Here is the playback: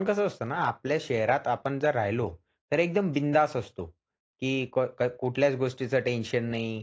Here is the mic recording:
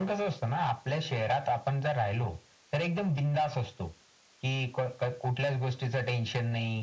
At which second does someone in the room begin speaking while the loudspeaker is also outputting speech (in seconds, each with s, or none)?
none